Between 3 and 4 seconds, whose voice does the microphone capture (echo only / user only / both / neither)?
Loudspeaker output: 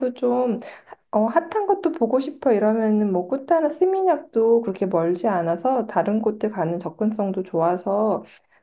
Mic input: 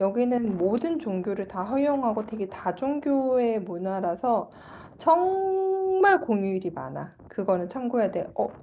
user only